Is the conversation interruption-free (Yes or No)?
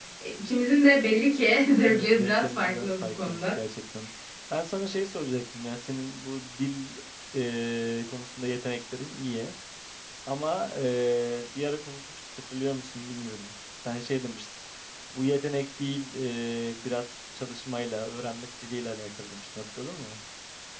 No